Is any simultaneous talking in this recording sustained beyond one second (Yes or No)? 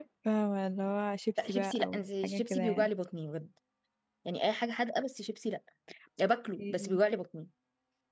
Yes